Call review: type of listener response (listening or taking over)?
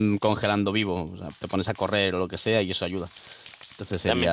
taking over